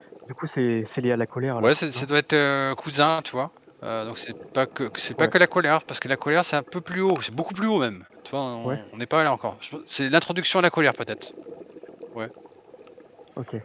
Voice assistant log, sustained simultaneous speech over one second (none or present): none